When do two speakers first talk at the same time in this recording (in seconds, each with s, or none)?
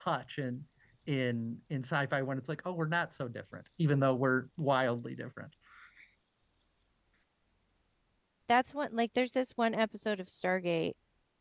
none